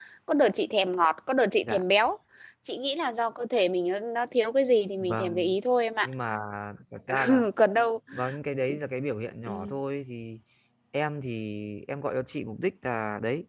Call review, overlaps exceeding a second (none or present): none